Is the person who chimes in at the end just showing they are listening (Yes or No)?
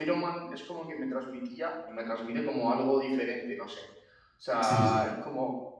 Yes